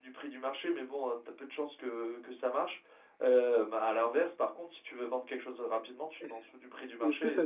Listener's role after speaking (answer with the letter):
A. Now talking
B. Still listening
A